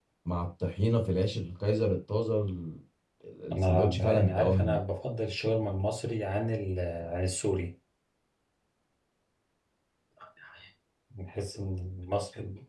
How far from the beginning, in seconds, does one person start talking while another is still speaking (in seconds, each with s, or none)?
3.6 s